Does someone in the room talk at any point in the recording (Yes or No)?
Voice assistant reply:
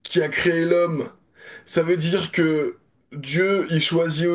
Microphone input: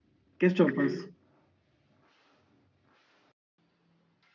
Yes